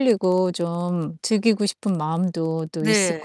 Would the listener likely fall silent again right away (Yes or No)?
No